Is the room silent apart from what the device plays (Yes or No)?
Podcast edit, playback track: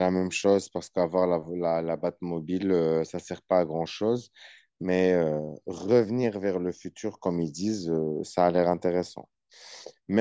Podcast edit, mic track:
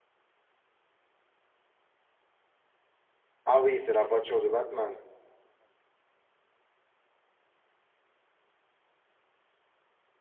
No